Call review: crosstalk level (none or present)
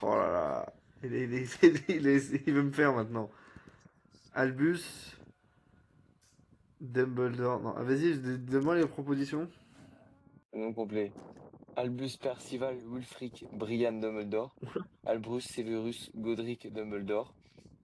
none